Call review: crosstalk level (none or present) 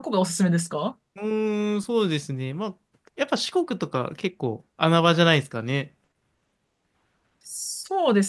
none